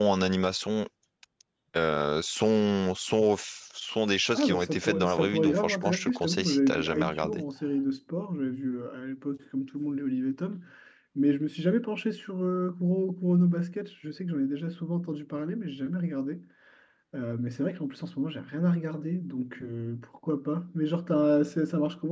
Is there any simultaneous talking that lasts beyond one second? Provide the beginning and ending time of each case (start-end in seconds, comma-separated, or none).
4.3-7.4